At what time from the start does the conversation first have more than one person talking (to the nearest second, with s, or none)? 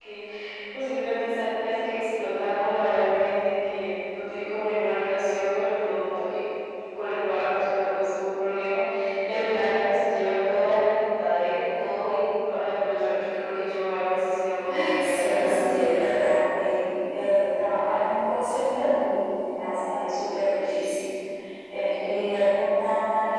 15 s